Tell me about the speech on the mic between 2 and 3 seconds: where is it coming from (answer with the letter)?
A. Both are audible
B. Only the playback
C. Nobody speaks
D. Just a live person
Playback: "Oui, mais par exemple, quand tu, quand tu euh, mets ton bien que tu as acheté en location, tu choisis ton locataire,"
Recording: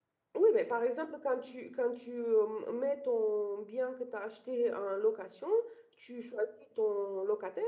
B